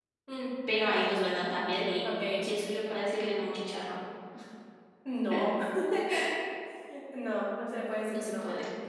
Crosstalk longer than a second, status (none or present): none